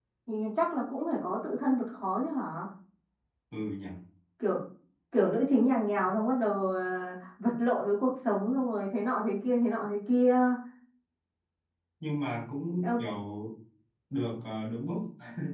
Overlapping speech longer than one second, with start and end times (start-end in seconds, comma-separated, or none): none